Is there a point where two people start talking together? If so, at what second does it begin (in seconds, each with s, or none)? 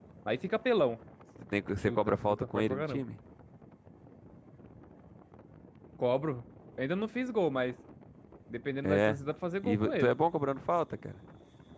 1.8 s